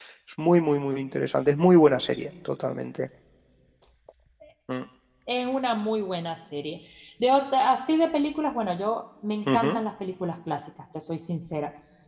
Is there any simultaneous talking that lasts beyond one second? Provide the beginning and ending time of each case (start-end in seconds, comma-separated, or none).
none